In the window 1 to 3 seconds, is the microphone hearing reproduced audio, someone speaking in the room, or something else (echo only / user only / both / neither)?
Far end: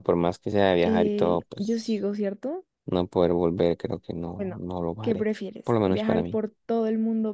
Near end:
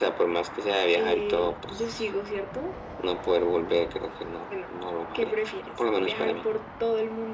echo only